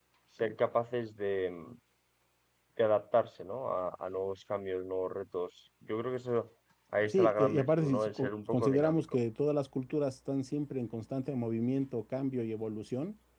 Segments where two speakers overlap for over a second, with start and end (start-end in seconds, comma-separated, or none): 7.1-9.2